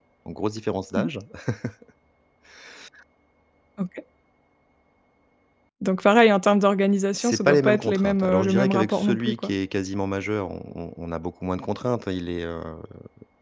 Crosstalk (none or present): present